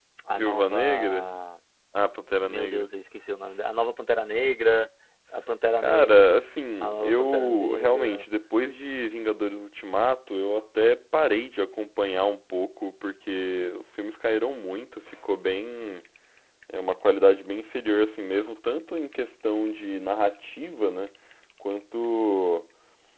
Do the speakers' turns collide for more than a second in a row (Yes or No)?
Yes